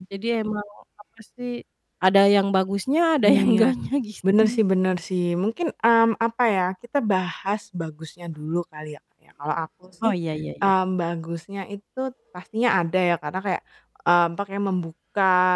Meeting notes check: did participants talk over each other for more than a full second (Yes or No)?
No